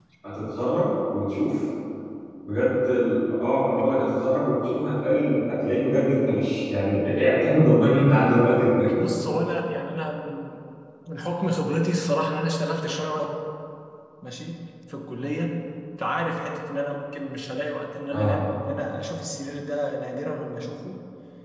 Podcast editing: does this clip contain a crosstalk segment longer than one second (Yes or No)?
No